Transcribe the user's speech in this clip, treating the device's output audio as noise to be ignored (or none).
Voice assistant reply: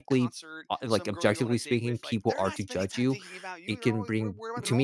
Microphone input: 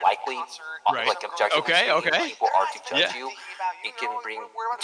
Right. Okay, okay. Yeah.